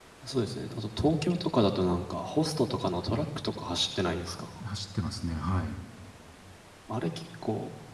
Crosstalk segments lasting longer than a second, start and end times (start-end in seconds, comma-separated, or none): none